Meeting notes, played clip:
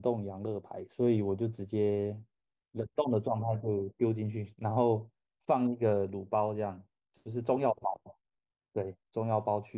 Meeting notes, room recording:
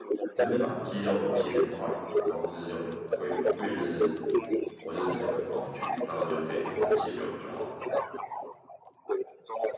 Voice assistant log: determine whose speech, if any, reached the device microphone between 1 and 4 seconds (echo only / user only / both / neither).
both